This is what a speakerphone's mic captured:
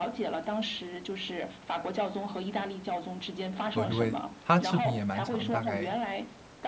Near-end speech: present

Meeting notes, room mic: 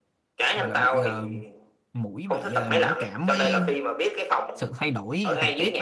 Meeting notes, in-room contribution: present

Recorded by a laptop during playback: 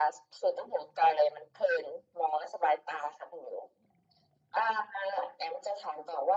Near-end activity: none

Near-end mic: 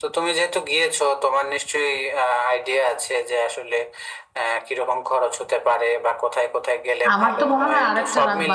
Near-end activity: present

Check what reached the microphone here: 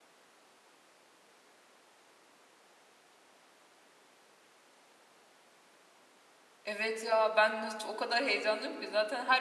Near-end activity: present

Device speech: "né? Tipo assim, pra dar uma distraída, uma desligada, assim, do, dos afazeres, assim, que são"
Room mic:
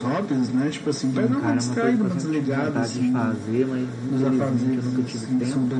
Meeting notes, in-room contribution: present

